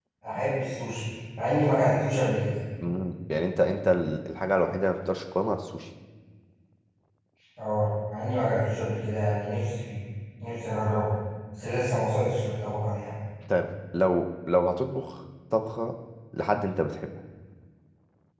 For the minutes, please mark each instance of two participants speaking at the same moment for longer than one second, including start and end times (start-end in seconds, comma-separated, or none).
none